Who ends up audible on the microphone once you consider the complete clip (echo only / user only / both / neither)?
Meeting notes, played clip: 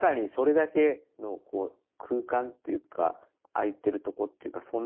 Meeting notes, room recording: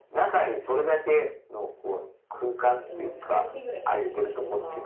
both